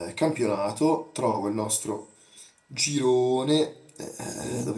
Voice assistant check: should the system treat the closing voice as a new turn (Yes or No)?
No